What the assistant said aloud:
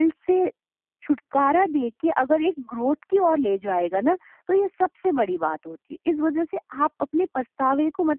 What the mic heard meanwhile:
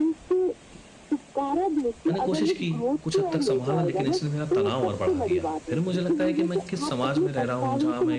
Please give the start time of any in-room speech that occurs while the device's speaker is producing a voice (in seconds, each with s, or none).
2.1 s